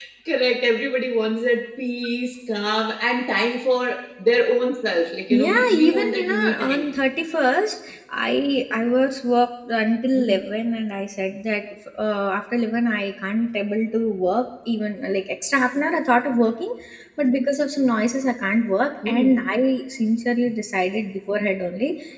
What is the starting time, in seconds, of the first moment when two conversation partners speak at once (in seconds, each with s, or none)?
5.3 s